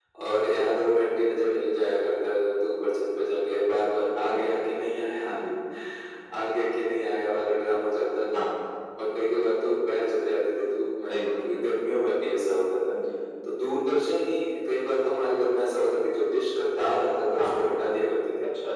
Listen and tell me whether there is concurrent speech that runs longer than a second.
No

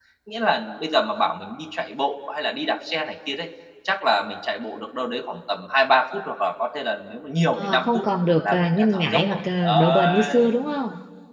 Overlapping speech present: Yes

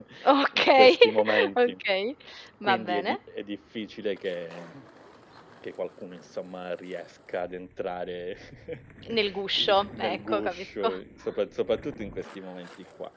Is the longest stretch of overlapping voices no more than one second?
No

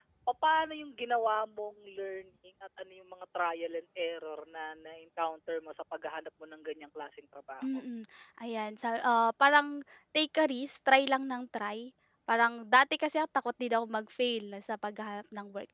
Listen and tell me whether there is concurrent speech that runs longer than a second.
No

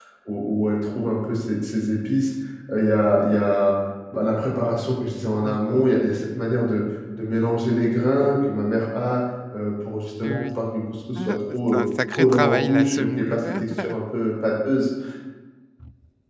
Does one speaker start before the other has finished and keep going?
Yes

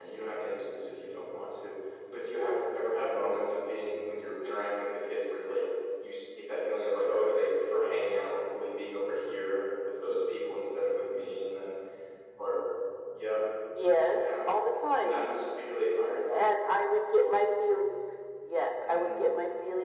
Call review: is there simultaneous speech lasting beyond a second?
No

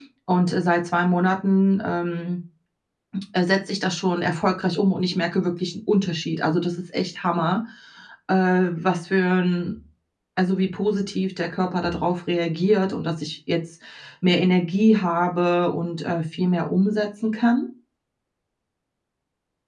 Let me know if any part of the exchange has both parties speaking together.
No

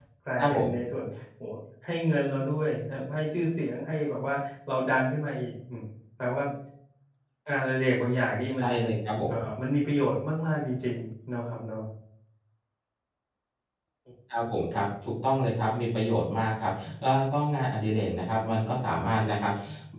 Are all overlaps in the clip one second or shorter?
Yes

